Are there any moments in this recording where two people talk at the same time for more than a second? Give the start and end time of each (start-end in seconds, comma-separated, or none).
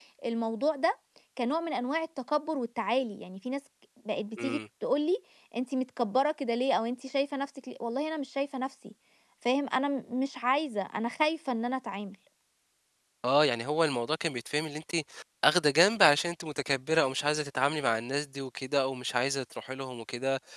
none